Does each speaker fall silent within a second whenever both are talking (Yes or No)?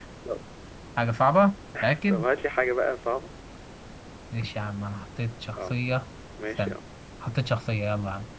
Yes